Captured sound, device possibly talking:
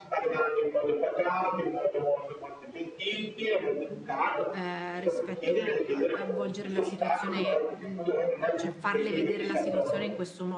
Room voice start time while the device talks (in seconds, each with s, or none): 4.5 s